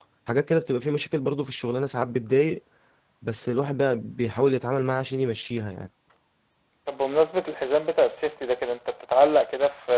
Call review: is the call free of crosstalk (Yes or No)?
Yes